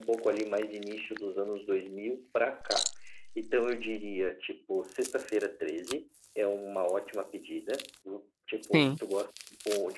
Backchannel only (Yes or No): Yes